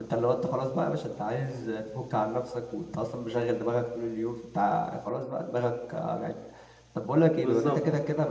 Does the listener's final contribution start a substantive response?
No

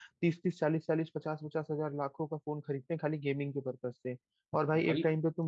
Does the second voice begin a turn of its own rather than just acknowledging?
No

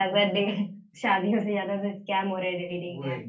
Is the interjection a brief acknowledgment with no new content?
No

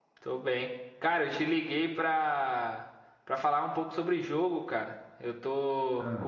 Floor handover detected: No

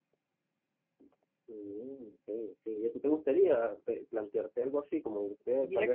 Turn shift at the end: Yes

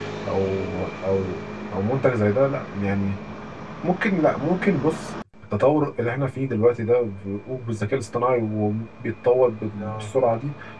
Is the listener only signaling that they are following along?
Yes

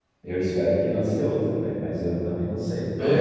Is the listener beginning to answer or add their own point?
No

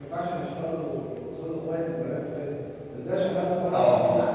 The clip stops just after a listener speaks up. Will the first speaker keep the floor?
Yes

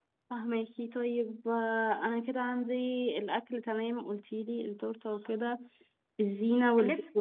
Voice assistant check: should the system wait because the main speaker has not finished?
Yes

